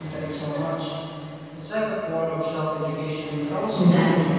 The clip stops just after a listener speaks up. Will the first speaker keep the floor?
No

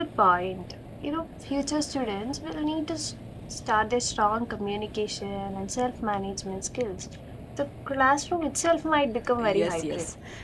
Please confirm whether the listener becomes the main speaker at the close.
Yes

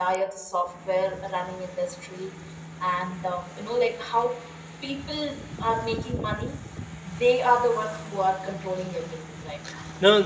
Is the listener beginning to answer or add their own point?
Yes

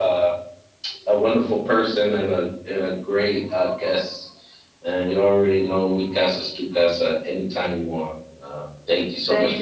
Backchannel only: No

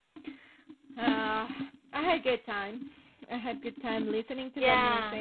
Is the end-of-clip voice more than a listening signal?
No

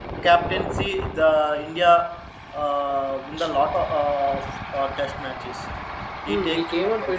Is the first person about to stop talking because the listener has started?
Yes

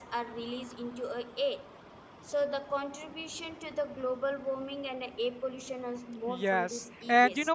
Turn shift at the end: Yes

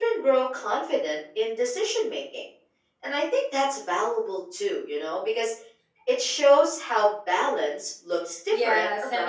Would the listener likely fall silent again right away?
No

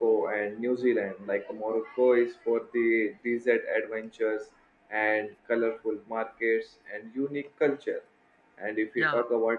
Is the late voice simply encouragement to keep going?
Yes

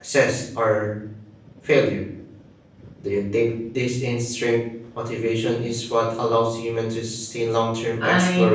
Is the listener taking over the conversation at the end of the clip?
Yes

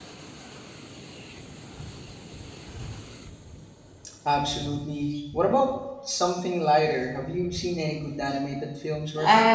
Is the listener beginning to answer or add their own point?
Yes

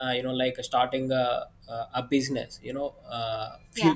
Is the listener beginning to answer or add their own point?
No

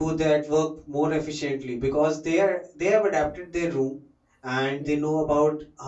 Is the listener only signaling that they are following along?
Yes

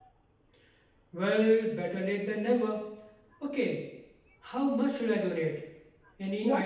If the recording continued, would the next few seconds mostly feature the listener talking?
Yes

